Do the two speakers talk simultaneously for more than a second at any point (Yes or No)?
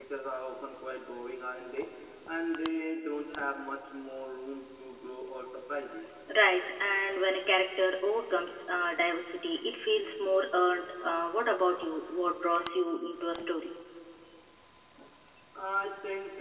No